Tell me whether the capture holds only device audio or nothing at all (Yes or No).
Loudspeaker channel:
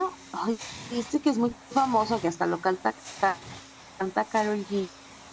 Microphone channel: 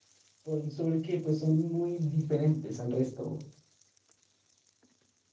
No